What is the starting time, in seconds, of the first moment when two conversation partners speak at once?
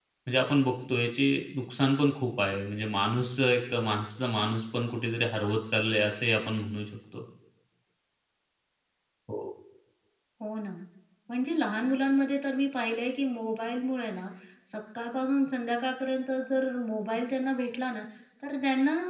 none

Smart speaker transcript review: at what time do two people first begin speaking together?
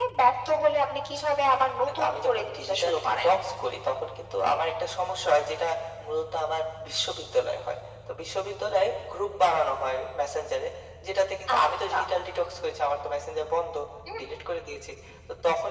2.1 s

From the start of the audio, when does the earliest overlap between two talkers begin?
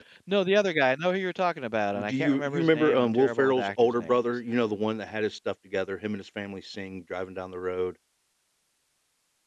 2.1 s

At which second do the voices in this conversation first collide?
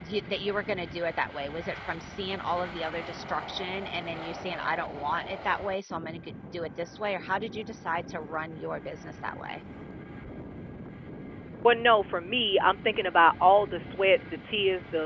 none

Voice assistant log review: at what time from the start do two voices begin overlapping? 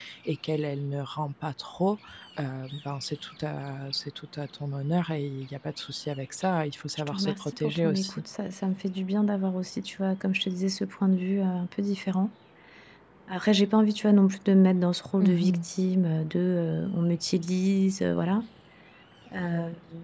7.0 s

